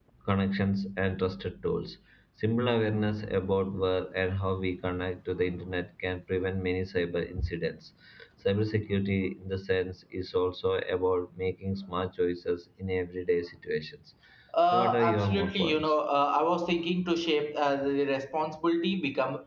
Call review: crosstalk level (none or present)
present